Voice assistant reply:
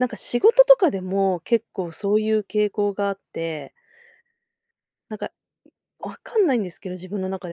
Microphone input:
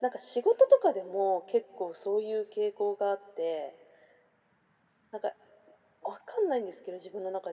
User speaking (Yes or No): No